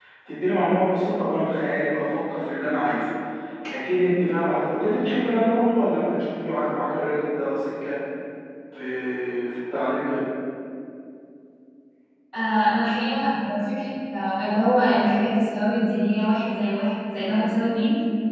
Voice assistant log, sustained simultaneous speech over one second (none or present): none